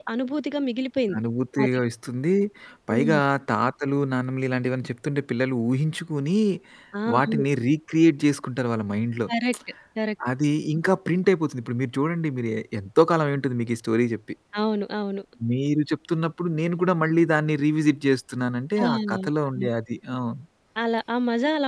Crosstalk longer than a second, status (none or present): none